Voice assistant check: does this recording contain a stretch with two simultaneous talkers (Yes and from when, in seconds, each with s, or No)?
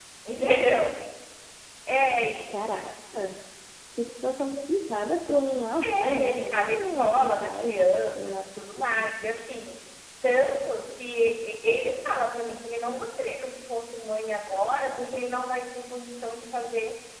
Yes, from 5.8 s